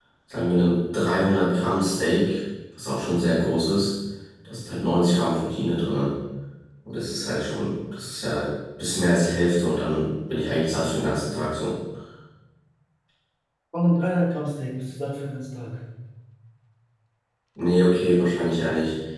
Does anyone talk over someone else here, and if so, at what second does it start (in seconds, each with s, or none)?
none